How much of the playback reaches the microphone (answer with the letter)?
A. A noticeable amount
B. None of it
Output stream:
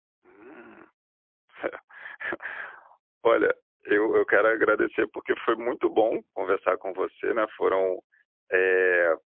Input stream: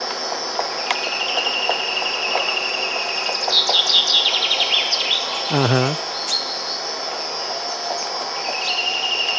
B